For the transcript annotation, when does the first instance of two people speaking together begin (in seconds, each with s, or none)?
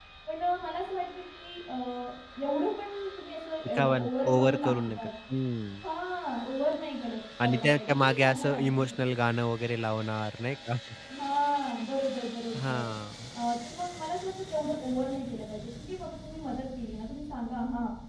3.6 s